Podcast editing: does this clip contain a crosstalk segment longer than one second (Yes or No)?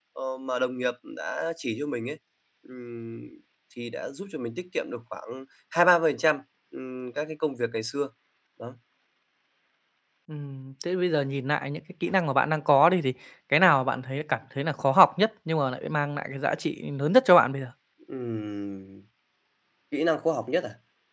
No